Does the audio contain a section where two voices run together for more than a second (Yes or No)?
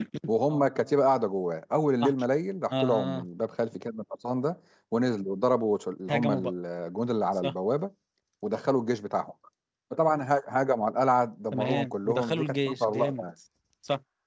Yes